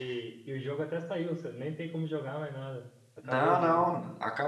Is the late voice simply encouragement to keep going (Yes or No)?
No